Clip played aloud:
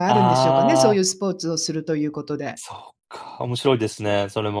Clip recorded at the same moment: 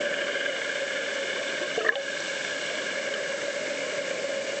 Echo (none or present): none